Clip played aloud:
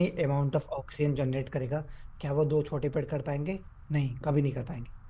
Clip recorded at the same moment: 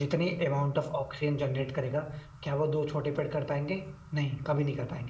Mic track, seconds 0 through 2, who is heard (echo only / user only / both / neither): echo only